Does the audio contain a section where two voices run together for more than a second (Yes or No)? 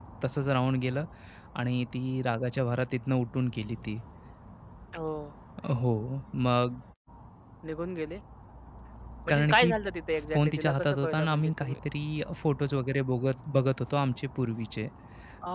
Yes